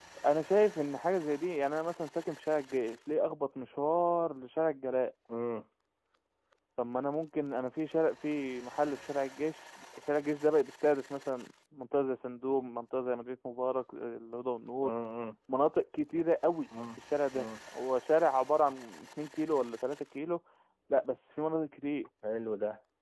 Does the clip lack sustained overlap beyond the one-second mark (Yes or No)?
Yes